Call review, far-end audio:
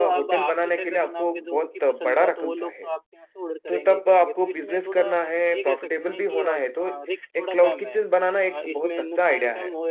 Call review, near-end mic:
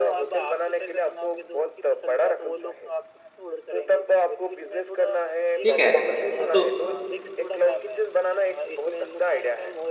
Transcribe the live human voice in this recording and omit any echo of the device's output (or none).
ठीक है हाँ, तो